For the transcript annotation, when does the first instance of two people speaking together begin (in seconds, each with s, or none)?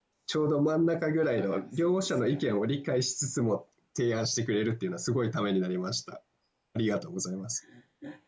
1.4 s